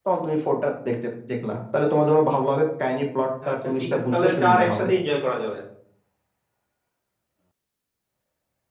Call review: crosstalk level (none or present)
present